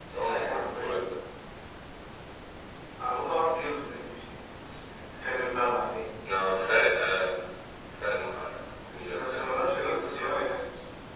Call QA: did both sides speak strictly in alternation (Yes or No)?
No